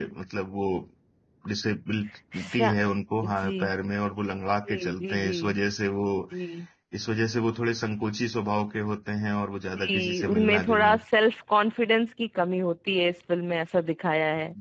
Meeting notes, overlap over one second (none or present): present